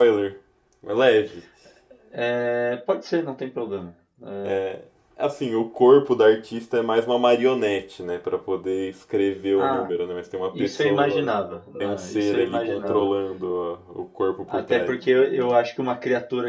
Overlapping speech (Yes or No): Yes